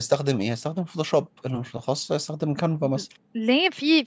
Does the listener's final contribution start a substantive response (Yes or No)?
Yes